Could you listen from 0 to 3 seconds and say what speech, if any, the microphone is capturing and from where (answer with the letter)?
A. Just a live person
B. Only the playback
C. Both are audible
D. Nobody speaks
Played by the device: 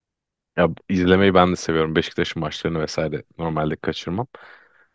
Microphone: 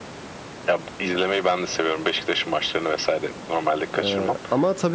B